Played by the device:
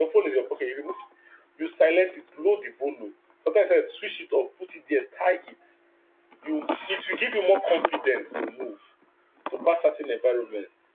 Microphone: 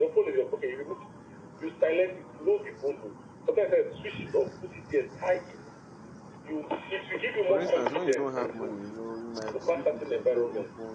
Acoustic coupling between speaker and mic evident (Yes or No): Yes